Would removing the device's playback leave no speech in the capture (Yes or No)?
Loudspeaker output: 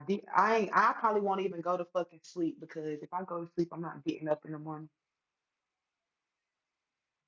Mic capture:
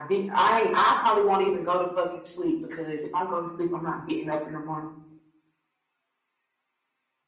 Yes